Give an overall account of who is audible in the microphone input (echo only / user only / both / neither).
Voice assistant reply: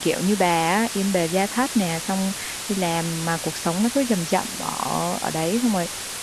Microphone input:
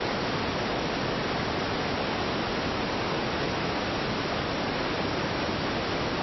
neither